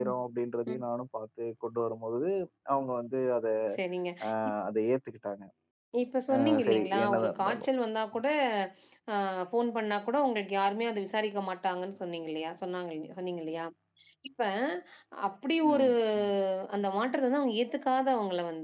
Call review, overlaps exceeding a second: present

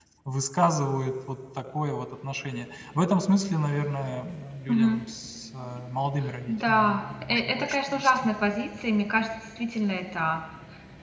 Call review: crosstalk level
present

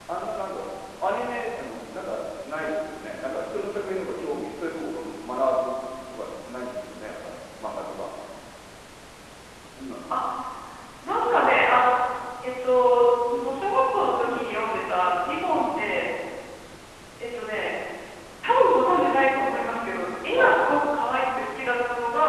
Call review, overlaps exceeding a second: none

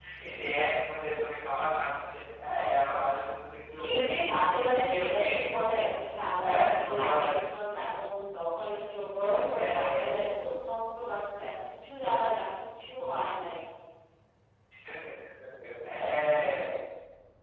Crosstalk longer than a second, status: present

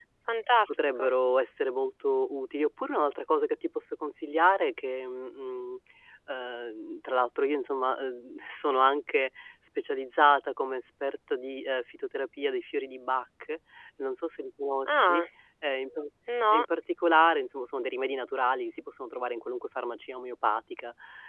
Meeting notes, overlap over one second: none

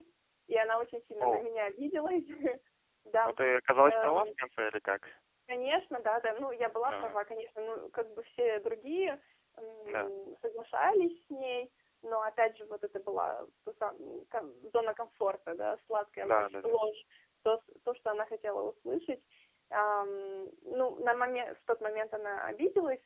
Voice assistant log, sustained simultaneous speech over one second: none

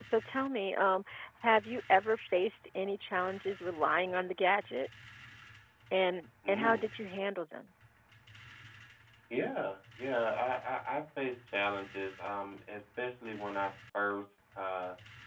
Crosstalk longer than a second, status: none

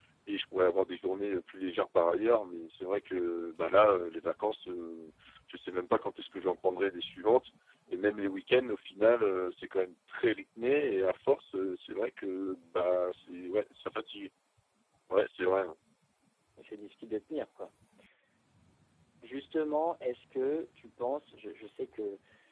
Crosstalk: none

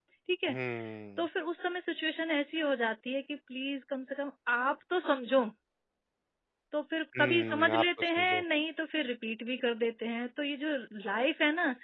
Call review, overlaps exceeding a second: present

